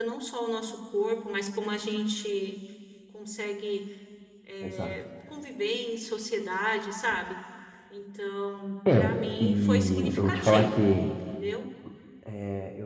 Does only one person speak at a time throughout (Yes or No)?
No